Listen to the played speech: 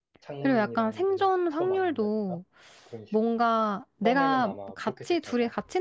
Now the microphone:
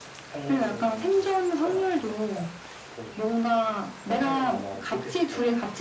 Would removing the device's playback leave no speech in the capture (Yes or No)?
Yes